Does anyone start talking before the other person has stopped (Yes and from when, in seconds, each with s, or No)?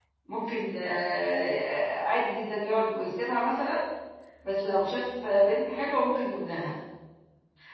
No